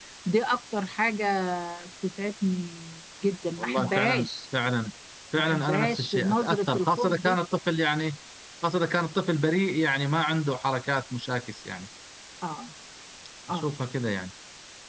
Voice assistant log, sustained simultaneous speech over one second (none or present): present